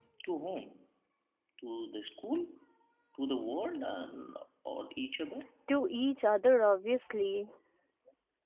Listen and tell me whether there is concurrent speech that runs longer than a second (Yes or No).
No